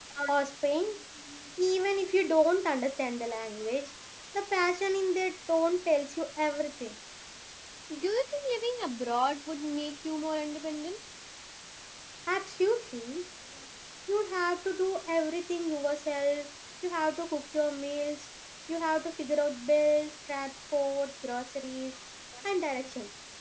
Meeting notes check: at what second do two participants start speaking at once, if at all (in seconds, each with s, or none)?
none